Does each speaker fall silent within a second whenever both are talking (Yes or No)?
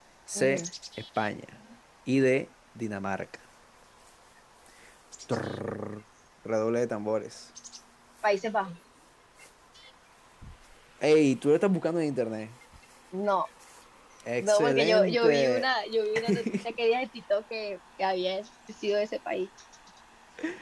No